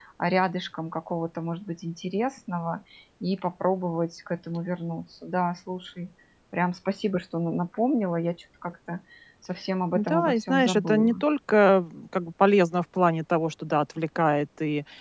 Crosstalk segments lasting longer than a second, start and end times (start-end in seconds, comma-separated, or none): 9.9-11.2